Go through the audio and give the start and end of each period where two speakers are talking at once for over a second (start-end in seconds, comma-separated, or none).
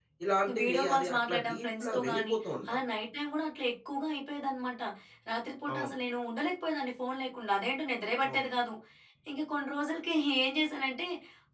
0.6-2.3